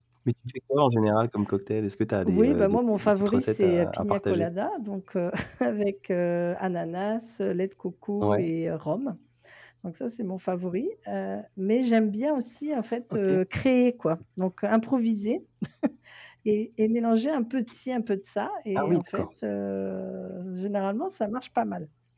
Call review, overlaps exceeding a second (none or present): present